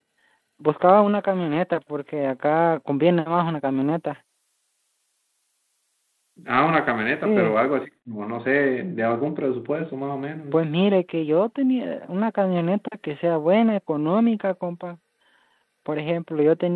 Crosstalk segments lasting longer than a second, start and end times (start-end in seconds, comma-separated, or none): none